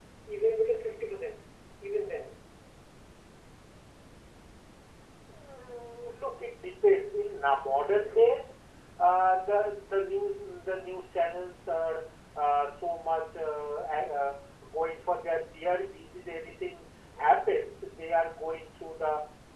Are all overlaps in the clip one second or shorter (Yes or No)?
Yes